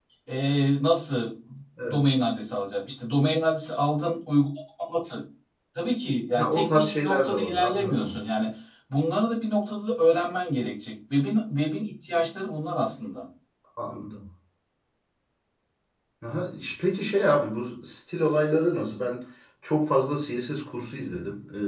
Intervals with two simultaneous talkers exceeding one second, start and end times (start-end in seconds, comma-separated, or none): 6.4-8.2